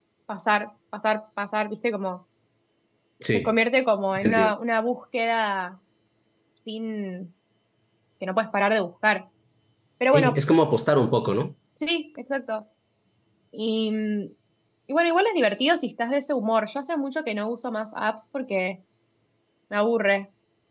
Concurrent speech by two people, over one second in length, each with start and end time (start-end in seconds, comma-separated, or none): none